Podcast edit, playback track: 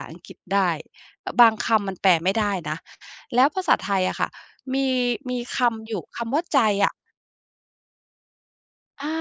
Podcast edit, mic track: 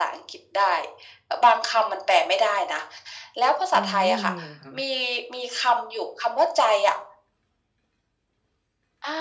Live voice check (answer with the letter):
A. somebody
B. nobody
A